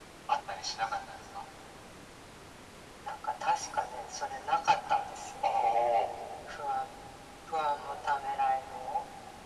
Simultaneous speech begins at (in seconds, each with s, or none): none